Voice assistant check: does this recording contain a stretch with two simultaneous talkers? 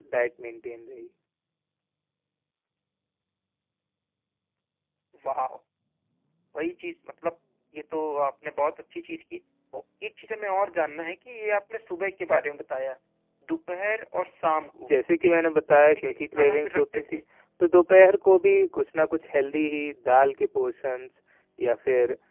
Yes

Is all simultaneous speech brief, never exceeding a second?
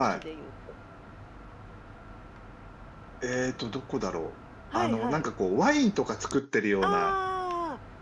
Yes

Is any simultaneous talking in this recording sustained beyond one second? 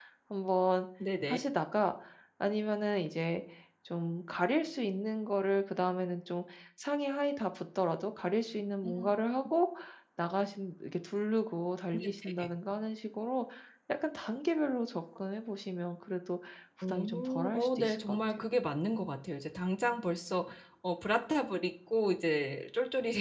Yes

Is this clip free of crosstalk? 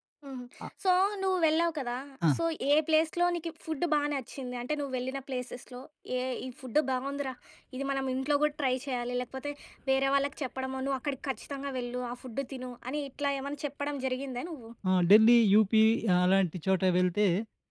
Yes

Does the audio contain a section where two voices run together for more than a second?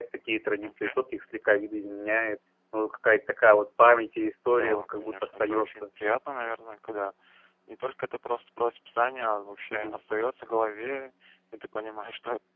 Yes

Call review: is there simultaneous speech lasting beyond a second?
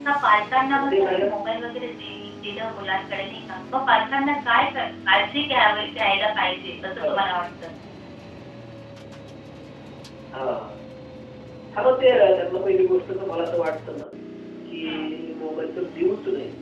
No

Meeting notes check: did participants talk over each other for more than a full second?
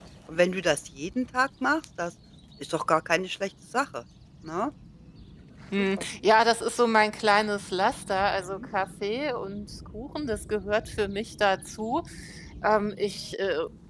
No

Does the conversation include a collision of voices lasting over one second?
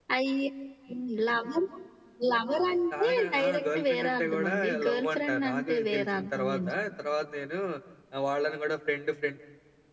Yes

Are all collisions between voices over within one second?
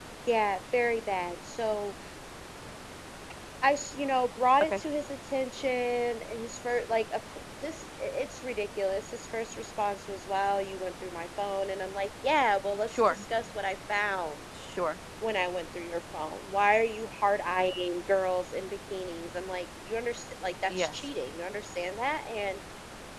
Yes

